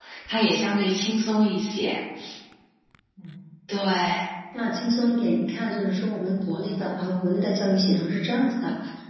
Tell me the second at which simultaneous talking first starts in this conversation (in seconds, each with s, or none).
none